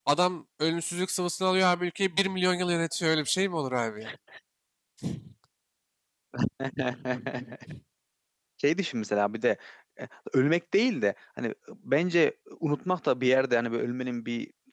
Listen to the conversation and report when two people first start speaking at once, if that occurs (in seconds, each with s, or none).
none